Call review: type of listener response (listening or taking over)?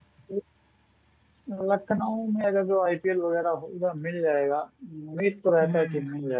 listening